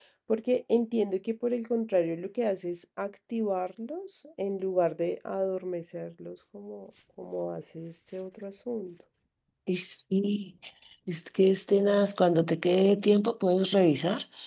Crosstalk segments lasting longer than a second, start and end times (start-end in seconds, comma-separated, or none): none